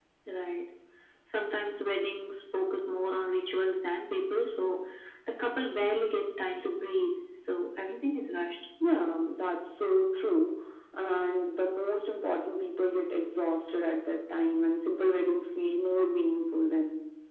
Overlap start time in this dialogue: none

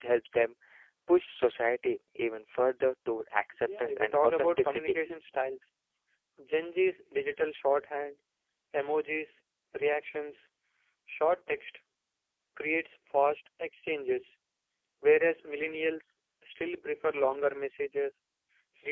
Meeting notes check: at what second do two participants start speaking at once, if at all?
3.6 s

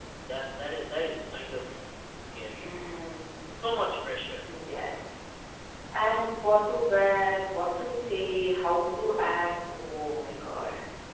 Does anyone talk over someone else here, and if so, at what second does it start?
none

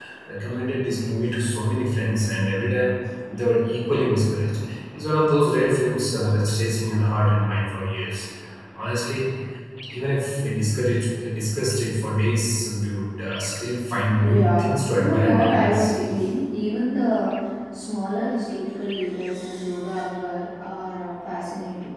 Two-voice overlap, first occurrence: 13.9 s

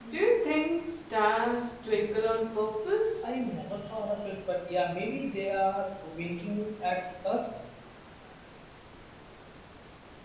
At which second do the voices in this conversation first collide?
none

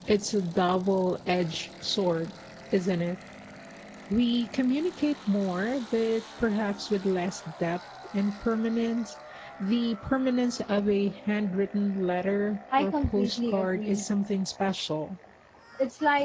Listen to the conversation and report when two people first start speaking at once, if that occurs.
12.7 s

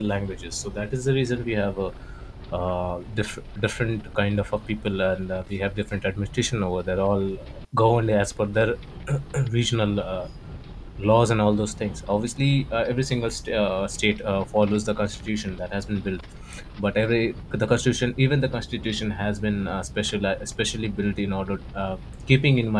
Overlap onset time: none

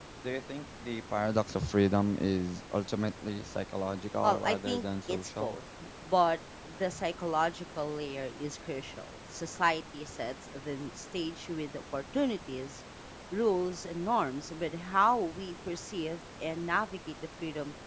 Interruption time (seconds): 4.2 s

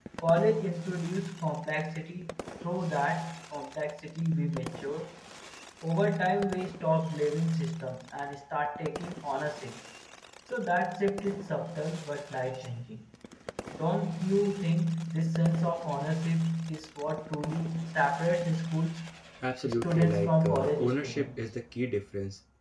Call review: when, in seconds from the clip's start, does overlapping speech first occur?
19.7 s

